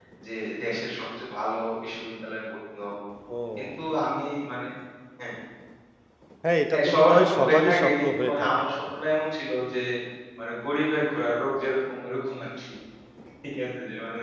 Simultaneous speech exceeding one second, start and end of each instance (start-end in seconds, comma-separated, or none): 6.7-8.6